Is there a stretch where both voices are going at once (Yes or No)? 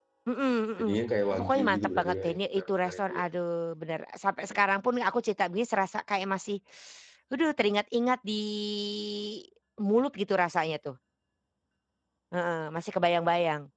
Yes